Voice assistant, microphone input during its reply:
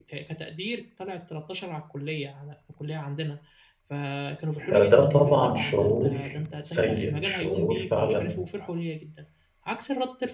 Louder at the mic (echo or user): user